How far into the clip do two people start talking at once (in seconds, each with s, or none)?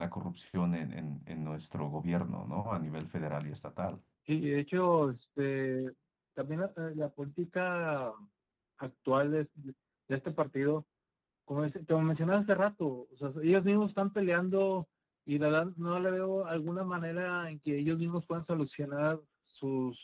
none